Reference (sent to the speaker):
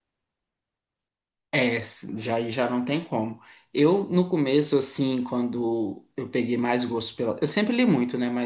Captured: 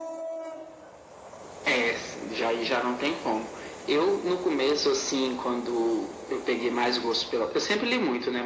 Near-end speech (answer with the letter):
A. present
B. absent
B